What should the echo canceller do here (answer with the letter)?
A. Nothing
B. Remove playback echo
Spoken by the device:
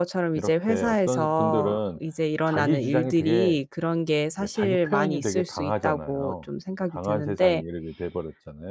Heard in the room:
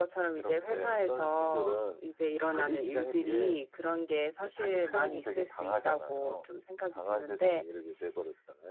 B